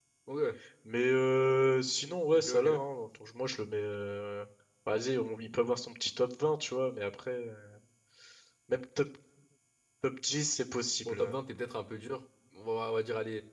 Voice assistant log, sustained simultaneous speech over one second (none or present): none